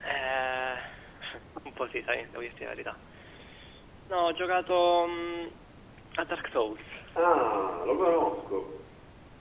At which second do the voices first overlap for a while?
none

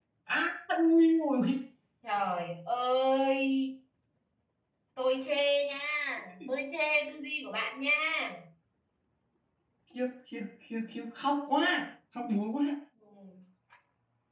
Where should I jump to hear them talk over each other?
none

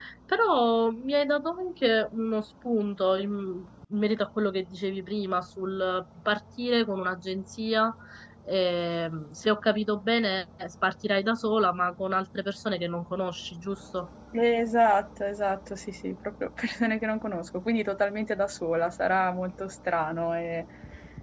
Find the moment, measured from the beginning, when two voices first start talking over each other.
none

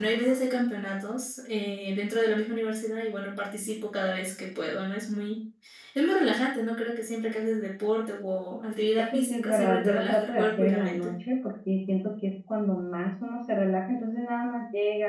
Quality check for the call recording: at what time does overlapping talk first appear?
9 s

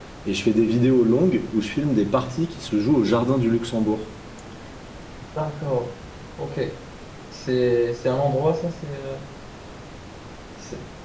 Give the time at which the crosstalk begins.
none

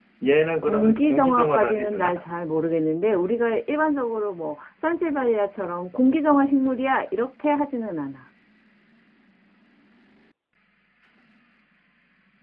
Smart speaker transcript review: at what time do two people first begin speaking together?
1 s

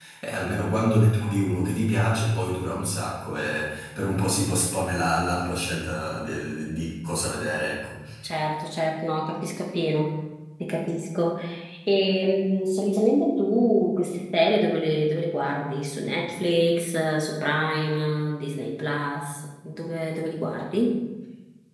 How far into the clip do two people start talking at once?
none

